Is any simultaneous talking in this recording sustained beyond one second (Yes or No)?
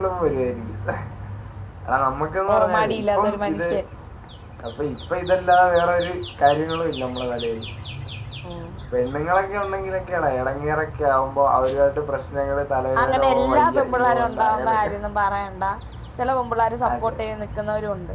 Yes